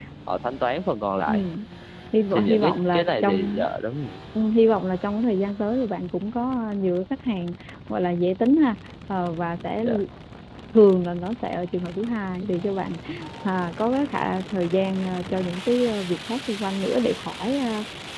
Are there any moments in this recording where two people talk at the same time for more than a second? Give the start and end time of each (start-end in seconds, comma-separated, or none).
2.3-3.7